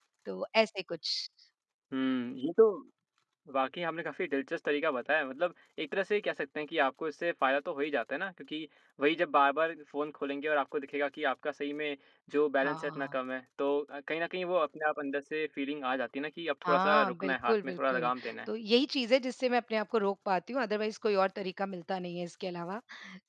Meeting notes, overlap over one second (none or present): present